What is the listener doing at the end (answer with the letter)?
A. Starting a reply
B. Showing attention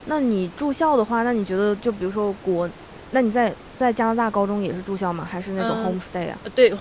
A